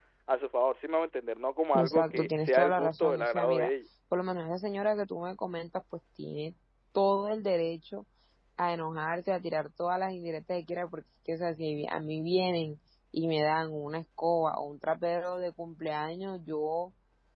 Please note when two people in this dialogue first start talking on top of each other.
2 s

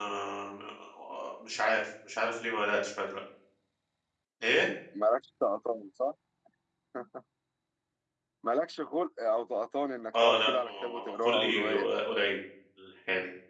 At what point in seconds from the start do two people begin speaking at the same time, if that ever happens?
10 s

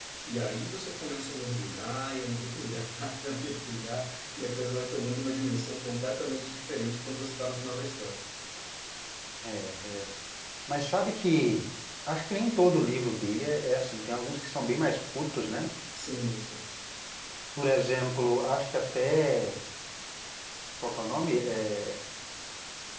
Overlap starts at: none

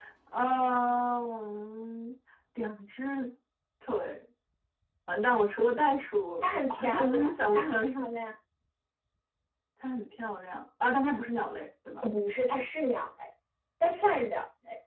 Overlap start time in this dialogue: 6 s

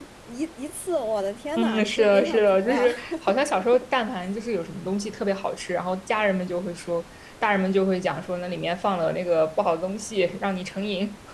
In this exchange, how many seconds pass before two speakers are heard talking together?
2 s

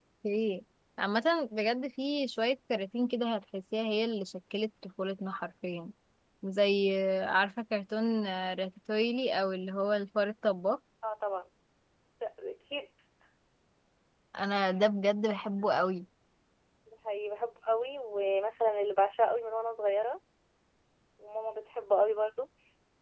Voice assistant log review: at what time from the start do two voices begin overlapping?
none

